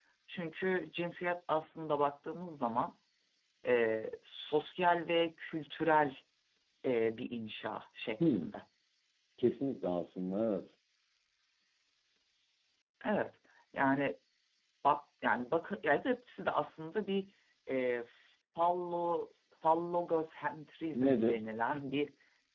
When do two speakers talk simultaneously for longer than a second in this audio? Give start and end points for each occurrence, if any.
none

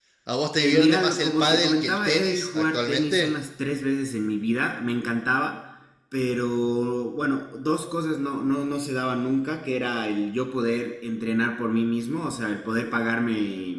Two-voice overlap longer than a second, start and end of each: 0.6-3.3

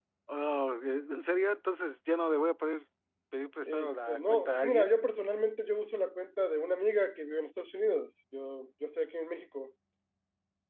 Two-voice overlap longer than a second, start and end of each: 3.7-4.9

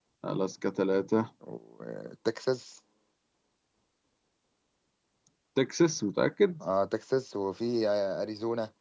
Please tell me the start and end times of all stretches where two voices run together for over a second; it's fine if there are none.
none

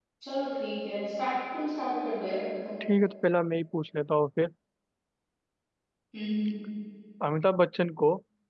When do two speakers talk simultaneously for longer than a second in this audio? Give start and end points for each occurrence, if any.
none

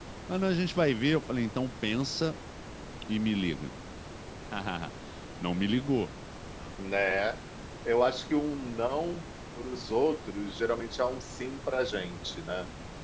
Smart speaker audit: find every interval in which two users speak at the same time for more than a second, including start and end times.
none

